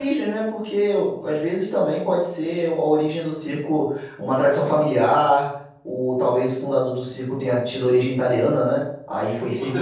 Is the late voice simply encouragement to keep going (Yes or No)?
No